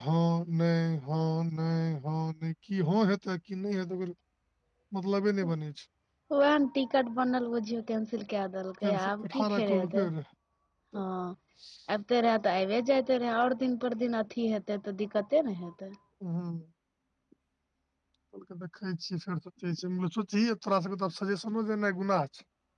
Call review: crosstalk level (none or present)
present